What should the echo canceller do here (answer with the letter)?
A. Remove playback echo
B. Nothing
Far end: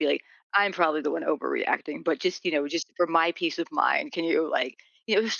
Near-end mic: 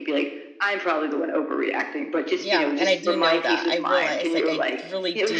A